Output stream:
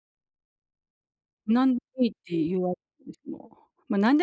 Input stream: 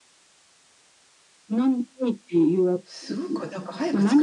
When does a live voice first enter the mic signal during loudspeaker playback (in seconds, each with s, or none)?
2.8 s